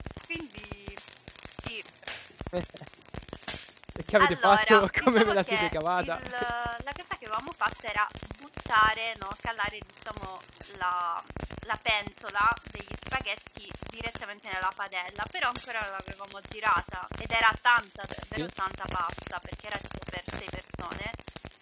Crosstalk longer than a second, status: present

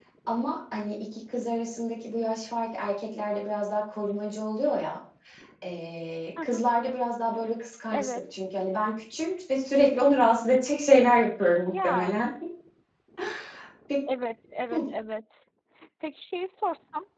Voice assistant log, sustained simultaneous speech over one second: none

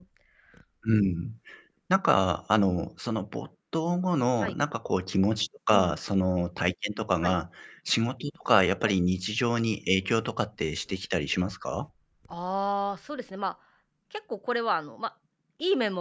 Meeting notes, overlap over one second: none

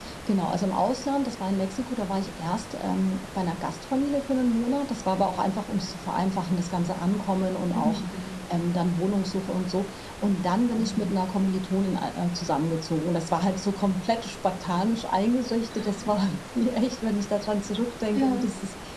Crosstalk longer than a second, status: none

